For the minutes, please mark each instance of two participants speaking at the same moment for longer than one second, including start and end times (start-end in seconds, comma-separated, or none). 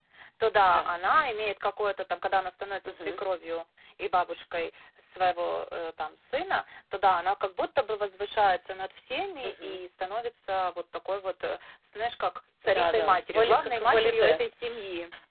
12.7-14.4